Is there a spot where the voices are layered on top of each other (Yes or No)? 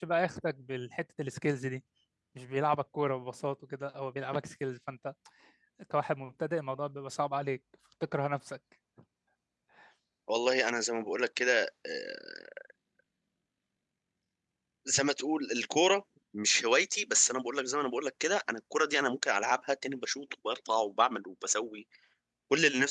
No